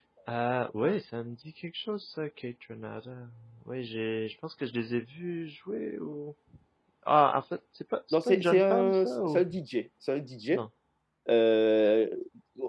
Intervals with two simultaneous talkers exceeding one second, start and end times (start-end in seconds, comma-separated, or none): 8.1-9.4